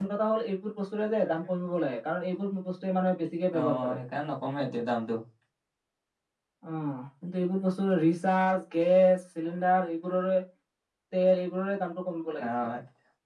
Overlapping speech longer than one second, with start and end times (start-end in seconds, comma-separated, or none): none